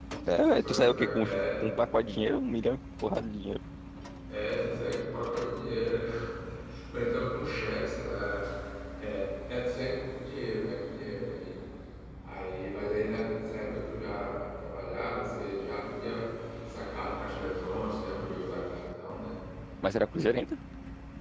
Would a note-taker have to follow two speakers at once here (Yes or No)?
Yes